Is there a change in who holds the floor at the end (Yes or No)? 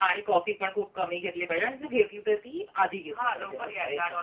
Yes